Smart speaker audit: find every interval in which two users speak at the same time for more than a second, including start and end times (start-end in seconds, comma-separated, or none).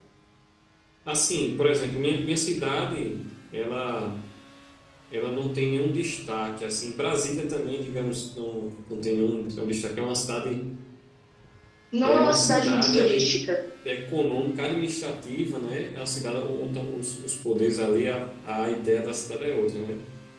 12.0-13.4